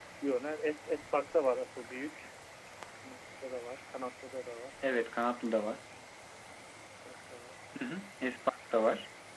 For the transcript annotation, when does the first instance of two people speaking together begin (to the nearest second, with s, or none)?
none